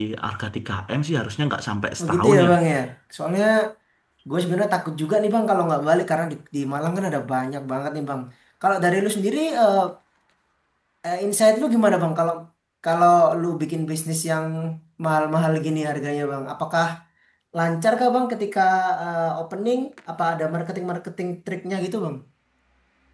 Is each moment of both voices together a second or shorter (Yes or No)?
Yes